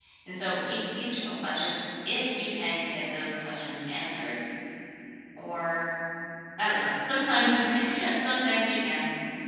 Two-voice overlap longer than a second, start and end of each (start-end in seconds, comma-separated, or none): none